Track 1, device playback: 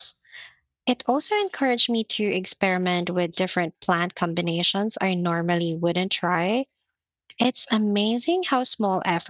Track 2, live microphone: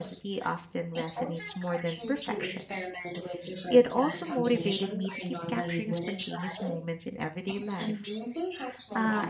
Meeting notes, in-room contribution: present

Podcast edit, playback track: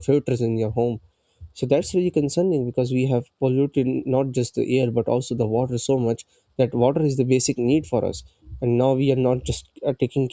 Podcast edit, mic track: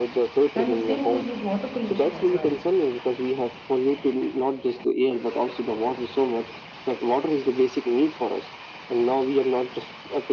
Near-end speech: present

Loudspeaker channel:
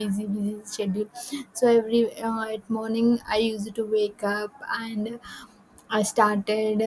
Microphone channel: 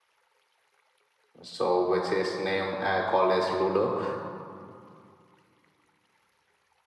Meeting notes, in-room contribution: present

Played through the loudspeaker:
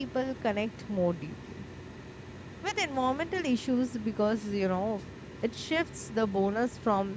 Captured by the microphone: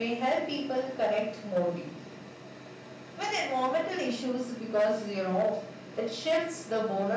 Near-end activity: none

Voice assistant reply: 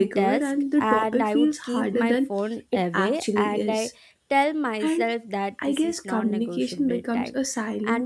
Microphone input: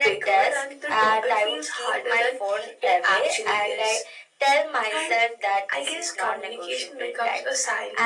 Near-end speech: none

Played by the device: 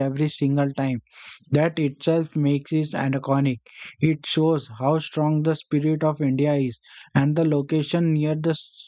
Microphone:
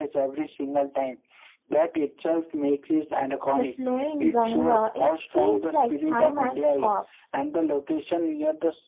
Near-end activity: present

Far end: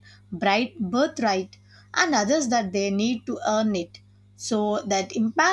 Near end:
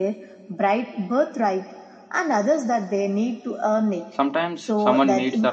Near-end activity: present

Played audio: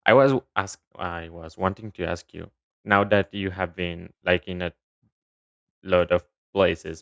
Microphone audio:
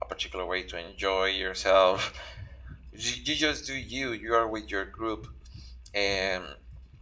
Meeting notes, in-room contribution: present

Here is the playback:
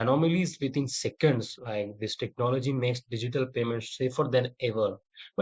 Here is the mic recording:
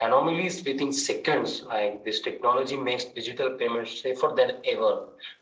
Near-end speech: none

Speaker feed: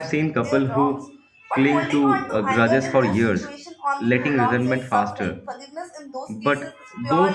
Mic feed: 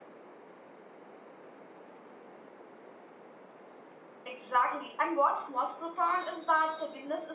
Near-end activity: present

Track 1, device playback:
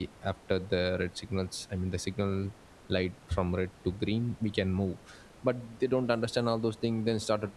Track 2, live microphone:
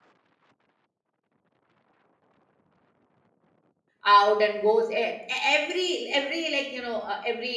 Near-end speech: present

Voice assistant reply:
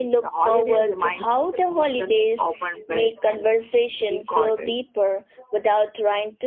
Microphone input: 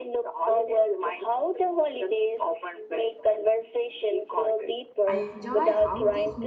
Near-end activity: present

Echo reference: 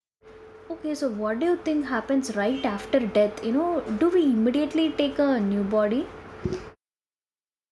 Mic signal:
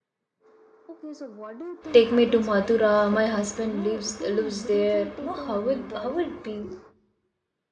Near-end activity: present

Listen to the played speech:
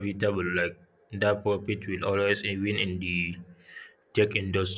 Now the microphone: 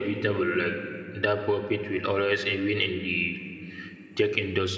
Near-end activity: none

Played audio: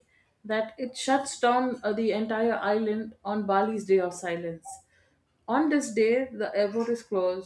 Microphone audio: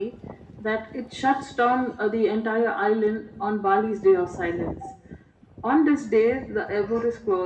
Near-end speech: none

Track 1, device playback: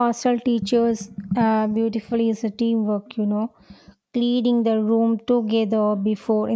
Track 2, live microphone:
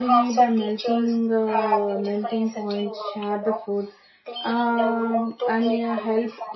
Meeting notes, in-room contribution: present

